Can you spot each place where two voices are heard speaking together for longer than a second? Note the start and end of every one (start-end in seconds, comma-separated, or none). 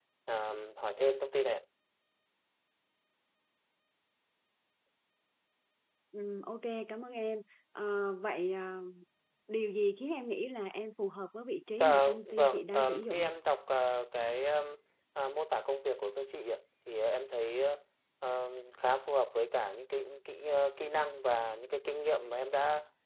11.8-13.3